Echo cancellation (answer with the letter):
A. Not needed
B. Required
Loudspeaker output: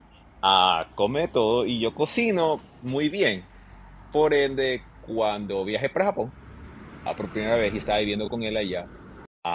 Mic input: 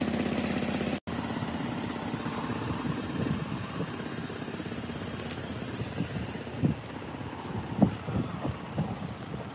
A